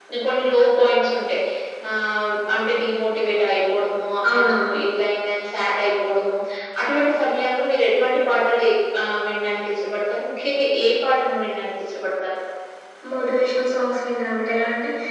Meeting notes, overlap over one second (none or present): none